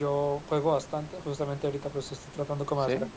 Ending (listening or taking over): listening